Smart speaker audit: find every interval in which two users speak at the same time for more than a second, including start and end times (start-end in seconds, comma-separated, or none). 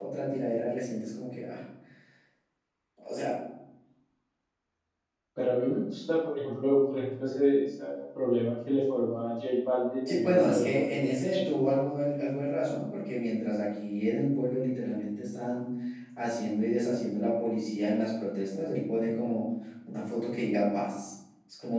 10.1-11.5